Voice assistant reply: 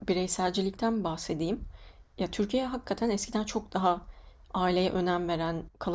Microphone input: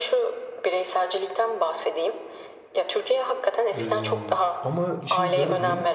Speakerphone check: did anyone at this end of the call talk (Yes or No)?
Yes